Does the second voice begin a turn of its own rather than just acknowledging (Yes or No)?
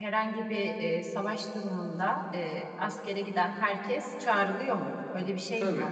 Yes